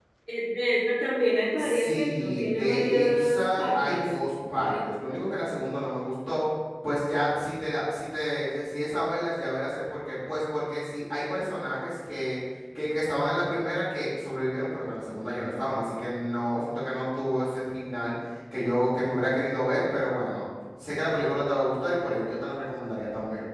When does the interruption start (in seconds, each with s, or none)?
1.6 s